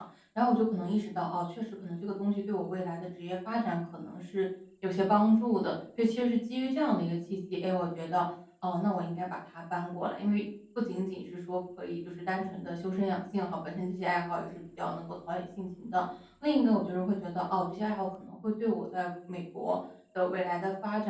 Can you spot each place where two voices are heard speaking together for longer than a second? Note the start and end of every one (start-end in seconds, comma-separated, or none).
none